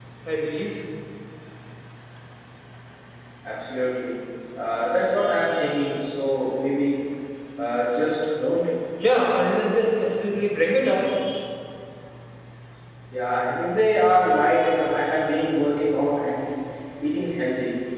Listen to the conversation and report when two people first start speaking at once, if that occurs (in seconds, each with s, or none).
none